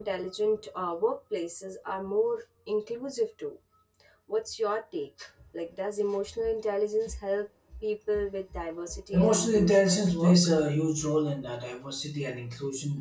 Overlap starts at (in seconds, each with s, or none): 9.1 s